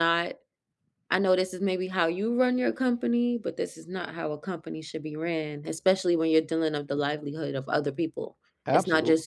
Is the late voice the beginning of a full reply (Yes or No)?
No